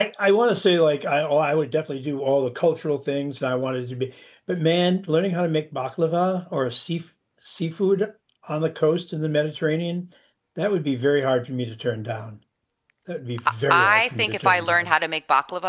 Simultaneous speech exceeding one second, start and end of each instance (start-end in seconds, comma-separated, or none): 13.7-14.9